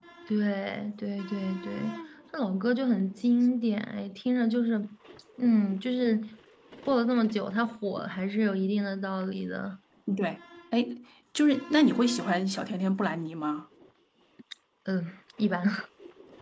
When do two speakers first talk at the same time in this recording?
none

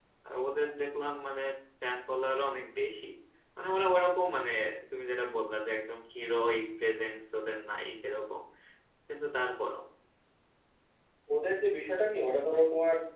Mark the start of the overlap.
none

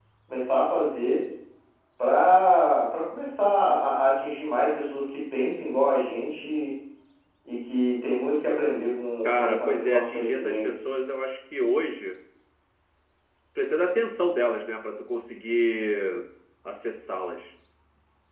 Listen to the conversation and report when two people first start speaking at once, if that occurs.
9 s

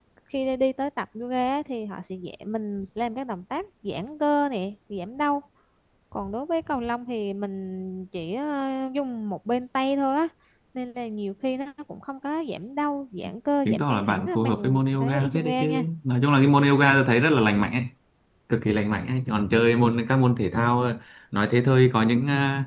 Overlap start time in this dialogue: 14 s

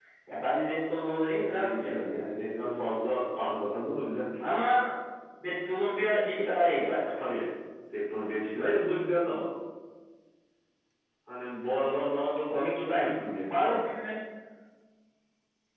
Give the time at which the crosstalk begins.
1 s

